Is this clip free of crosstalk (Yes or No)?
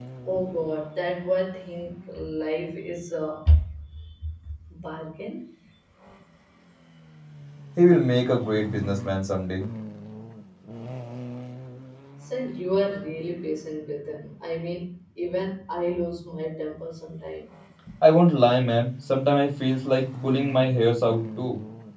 Yes